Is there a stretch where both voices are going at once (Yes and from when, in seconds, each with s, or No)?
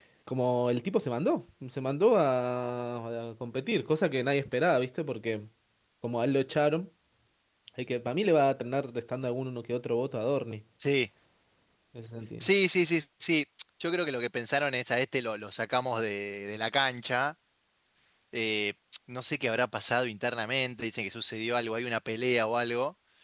No